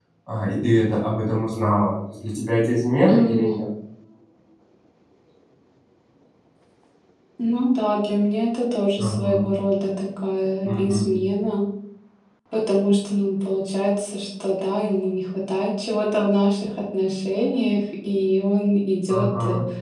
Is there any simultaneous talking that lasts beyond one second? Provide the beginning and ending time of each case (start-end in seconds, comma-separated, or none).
none